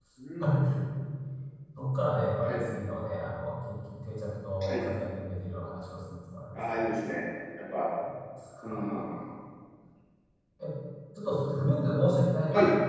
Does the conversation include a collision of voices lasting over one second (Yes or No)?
No